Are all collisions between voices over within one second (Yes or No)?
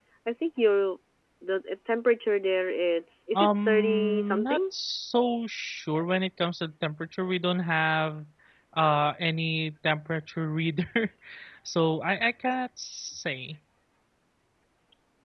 No